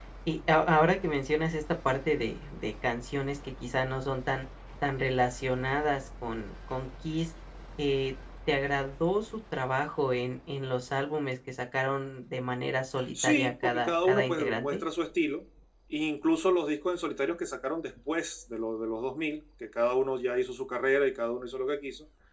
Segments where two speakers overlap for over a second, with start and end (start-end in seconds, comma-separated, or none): 13.2-14.8